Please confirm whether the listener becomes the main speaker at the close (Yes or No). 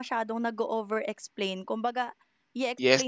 Yes